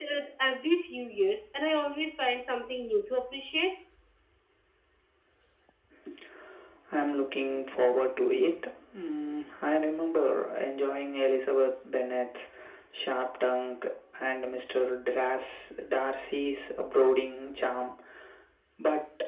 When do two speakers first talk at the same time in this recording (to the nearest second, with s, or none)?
none